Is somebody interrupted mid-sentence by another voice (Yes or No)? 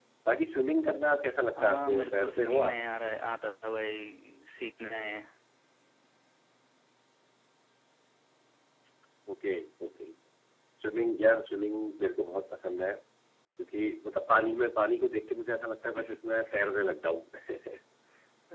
Yes